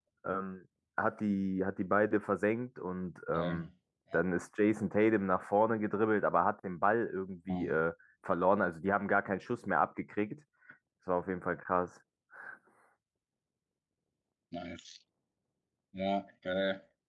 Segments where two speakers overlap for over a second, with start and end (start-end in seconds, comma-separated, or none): none